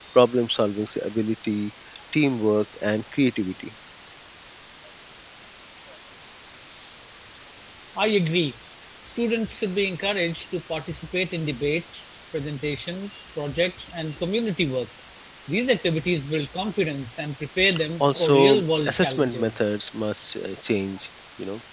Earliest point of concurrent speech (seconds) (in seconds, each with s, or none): 18.0 s